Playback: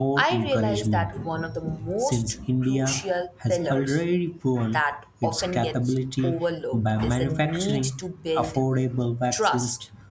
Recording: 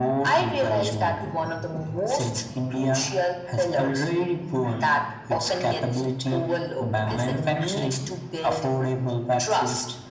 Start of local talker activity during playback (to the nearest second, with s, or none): none